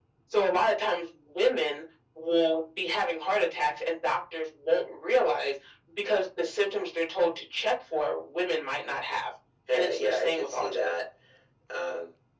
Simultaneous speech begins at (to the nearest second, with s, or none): 10 s